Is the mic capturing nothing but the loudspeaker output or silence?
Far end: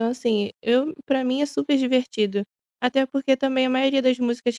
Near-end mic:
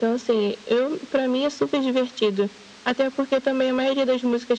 Yes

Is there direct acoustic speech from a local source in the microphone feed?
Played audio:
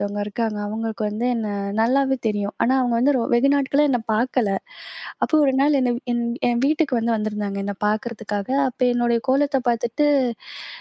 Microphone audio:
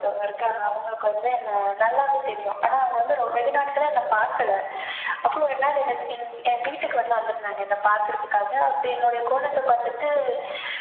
No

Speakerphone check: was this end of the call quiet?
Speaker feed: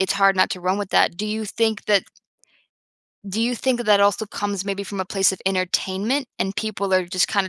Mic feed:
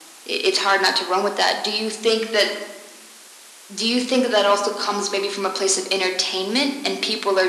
Yes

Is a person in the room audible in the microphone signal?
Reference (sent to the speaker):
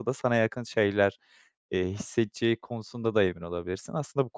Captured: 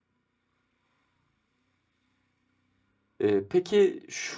Yes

